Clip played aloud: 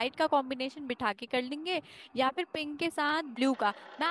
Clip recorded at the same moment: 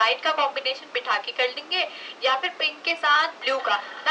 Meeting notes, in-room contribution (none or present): none